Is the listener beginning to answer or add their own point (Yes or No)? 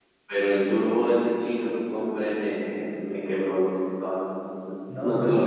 No